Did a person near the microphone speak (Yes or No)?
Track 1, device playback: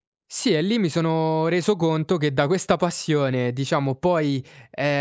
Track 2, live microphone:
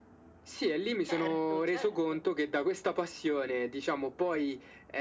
Yes